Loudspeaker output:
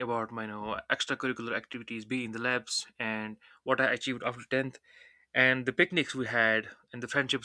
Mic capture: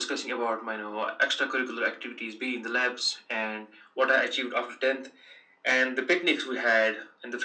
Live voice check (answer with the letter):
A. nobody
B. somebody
A